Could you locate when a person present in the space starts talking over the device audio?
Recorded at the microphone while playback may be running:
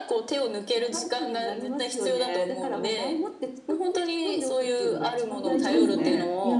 5 s

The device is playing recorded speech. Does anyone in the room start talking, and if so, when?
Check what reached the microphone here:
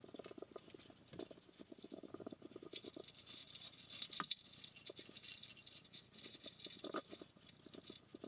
none

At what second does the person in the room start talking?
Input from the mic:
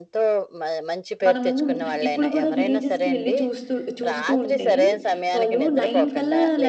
1 s

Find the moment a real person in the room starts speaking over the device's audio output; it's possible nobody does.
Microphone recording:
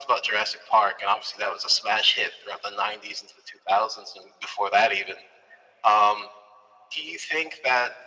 none

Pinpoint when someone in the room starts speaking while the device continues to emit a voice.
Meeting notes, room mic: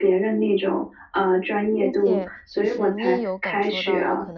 2 s

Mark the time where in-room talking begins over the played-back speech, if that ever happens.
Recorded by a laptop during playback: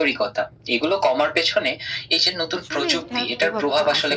3 s

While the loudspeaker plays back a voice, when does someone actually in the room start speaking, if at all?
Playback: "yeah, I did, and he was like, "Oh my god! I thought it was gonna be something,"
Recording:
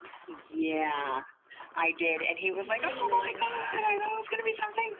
2 s

